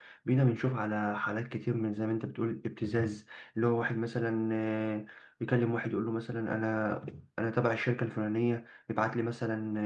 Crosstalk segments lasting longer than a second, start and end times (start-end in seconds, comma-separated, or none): none